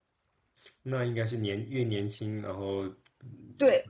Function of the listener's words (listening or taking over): taking over